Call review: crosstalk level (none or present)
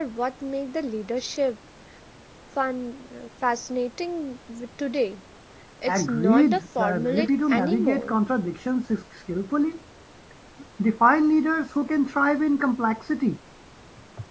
present